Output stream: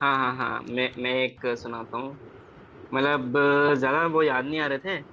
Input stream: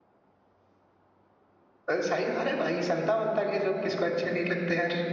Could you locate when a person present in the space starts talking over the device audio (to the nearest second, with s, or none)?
2 s